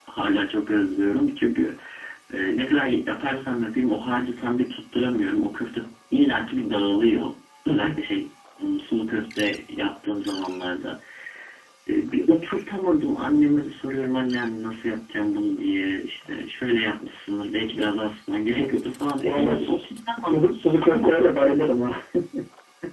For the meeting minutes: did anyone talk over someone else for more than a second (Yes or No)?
Yes